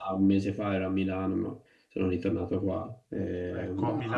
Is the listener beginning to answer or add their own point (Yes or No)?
Yes